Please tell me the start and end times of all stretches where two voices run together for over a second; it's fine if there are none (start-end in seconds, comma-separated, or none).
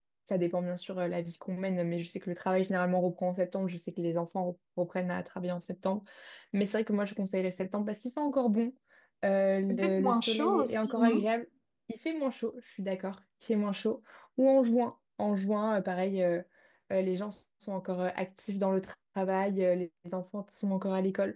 9.7-11.3